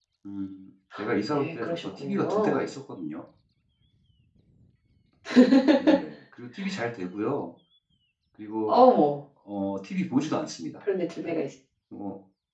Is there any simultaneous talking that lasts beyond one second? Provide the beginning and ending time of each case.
1.3-2.7

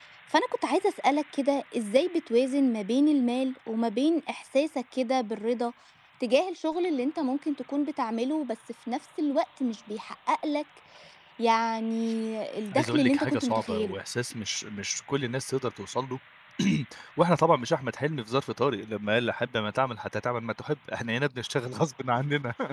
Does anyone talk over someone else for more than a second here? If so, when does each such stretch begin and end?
12.7-14.0

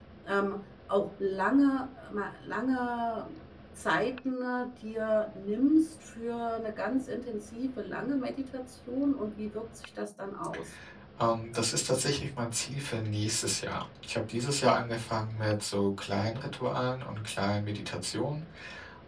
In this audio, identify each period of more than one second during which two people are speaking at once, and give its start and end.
none

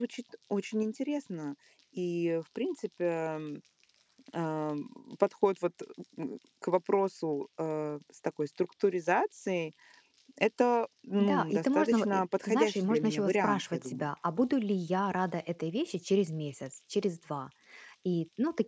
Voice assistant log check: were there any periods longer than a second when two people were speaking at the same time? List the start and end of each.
11.2-14.1

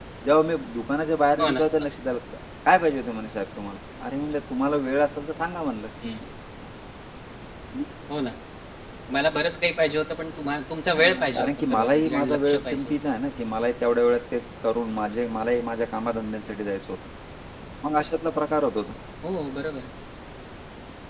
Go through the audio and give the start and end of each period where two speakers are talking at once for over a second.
10.9-13.0

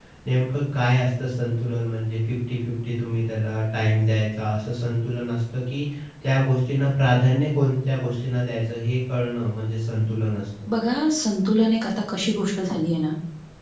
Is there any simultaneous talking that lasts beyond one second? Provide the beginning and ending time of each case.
none

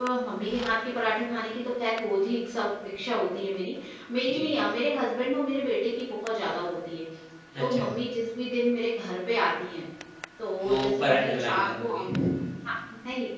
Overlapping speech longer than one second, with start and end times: 10.7-12.3

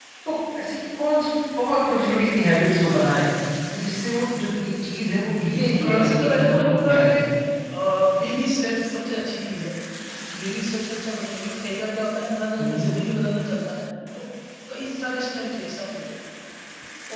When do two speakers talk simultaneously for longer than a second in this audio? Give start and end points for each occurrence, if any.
5.8-7.3

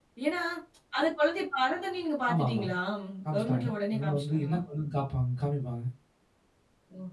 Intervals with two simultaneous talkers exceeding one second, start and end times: 3.4-4.6

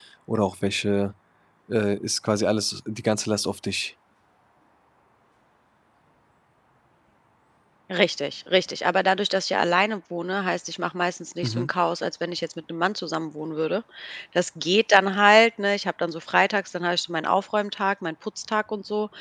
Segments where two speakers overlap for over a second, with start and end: none

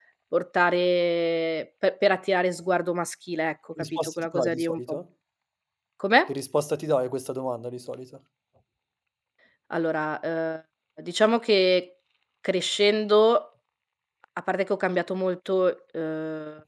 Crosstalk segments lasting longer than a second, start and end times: 3.8-5.0

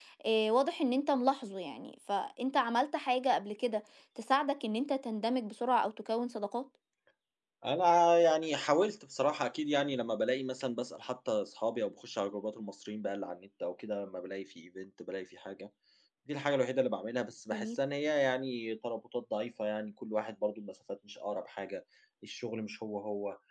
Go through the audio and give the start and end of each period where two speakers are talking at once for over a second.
none

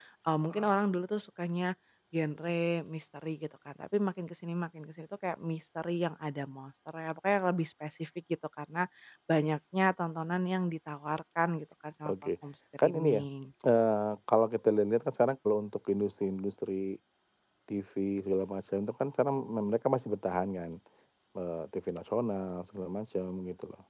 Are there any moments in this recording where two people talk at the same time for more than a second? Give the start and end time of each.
none

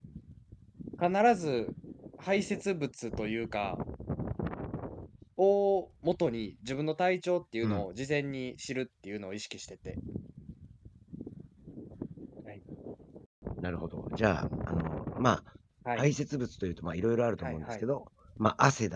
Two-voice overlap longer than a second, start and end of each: none

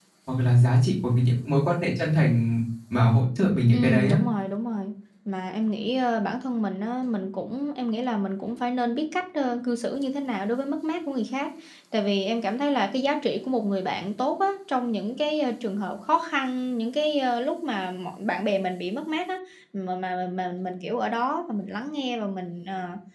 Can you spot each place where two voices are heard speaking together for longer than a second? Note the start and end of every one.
none

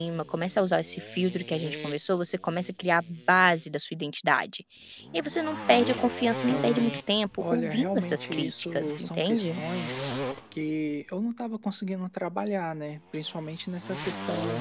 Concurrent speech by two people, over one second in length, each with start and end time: 7.4-9.5

